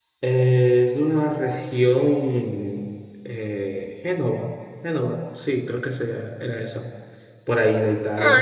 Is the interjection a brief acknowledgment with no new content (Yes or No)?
No